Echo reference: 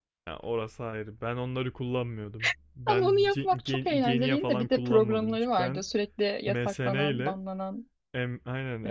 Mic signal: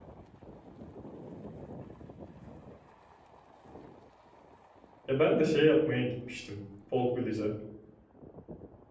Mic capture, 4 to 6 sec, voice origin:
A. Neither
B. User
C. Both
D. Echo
B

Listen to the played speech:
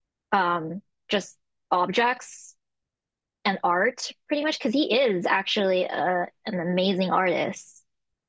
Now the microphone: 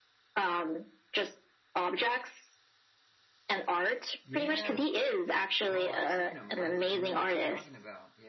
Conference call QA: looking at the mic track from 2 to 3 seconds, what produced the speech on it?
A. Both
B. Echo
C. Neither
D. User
B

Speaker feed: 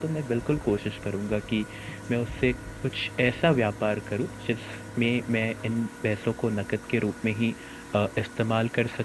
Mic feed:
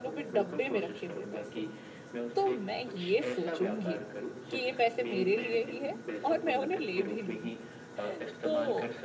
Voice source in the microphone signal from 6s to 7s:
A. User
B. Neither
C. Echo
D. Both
D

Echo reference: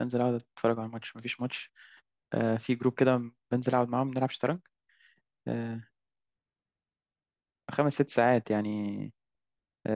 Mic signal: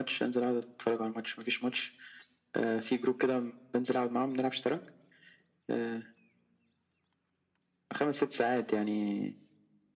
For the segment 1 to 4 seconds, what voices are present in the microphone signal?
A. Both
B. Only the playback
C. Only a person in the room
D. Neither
B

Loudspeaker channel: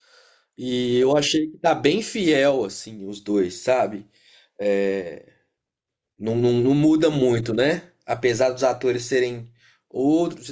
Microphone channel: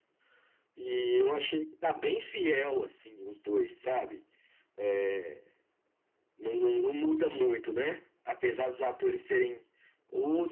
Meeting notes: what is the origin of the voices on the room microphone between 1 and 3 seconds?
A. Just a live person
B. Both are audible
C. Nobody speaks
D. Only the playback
D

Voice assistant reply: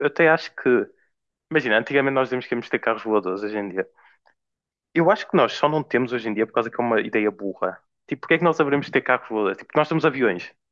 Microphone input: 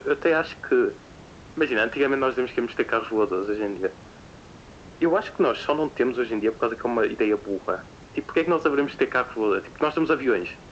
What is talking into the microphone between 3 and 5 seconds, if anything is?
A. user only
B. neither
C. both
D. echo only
D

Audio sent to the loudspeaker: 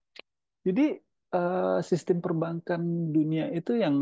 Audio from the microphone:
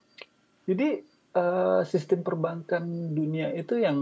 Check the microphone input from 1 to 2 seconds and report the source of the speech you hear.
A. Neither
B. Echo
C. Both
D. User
B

